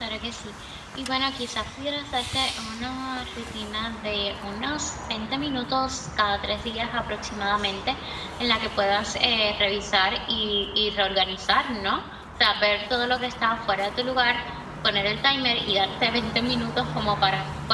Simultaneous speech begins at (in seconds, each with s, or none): none